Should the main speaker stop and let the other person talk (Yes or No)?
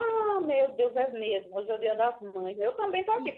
No